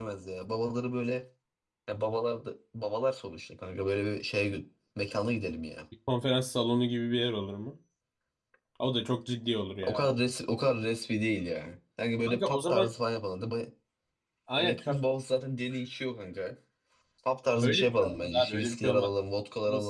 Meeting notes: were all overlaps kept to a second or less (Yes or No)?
No